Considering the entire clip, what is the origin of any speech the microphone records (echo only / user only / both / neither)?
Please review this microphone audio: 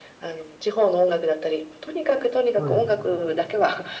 both